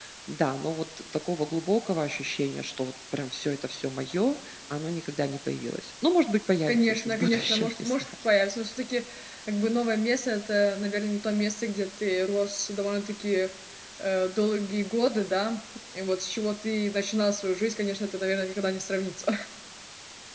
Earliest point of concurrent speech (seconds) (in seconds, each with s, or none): 6.7 s